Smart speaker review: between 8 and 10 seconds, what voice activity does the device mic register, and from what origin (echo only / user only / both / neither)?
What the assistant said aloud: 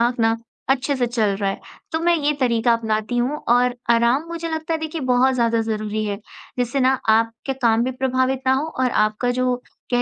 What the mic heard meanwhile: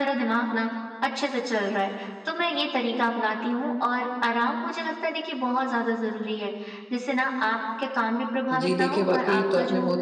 both